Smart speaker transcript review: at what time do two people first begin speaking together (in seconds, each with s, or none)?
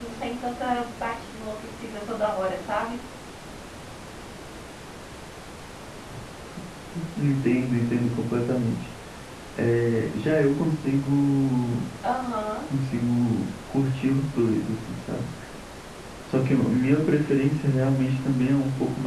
none